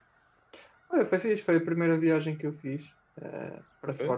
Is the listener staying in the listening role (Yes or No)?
Yes